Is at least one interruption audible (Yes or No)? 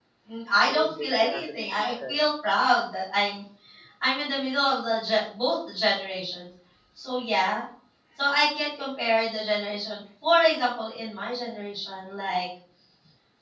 Yes